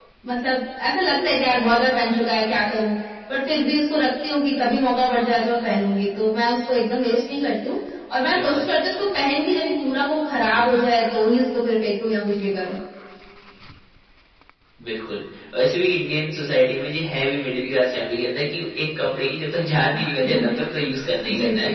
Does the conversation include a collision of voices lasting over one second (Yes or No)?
No